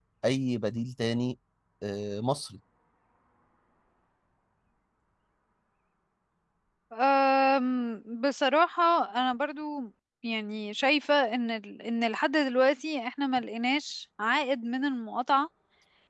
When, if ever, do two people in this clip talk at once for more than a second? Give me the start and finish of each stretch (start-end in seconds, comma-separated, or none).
none